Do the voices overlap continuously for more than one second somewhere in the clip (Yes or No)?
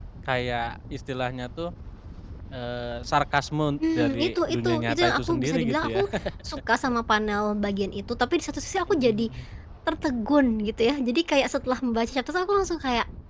Yes